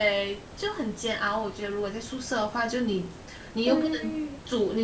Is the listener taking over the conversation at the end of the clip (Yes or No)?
No